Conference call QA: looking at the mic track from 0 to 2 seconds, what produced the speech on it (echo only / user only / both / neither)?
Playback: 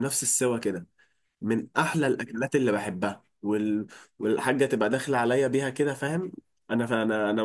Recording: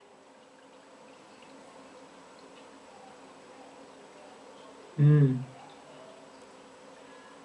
neither